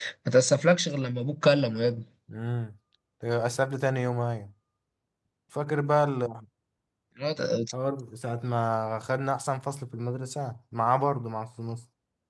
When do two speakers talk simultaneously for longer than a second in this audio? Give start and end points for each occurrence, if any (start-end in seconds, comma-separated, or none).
none